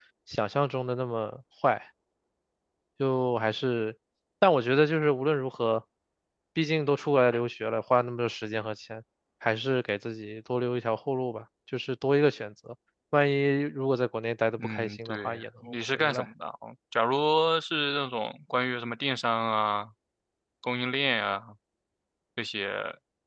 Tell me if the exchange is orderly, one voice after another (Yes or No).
No